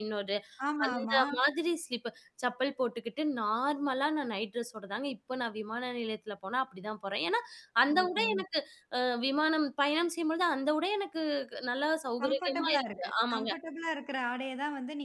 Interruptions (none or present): present